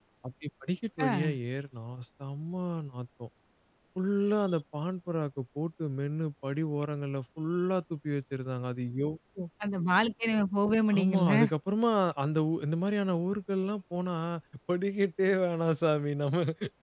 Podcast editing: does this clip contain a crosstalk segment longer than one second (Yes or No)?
No